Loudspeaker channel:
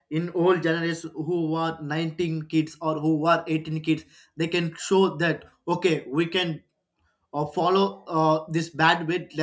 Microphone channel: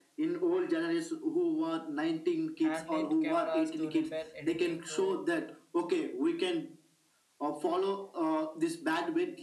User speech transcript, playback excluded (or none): hand-lit cameras to repair editing to